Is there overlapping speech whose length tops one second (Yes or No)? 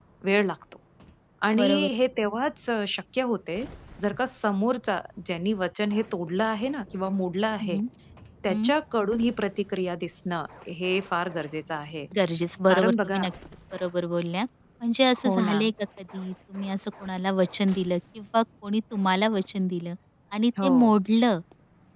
No